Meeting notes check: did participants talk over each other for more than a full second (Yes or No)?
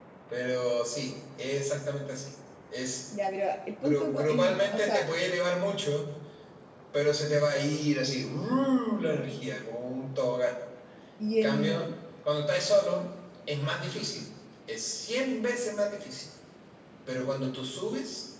Yes